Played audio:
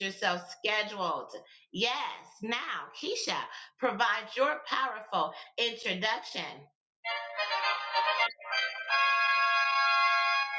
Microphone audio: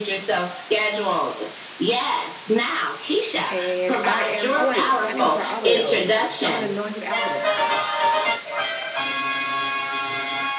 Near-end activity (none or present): present